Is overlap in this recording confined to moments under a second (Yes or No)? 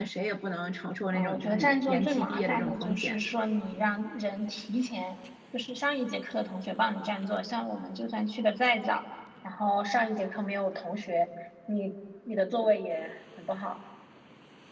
No